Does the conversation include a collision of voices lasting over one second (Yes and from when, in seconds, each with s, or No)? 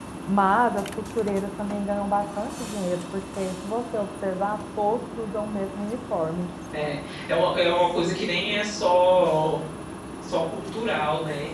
No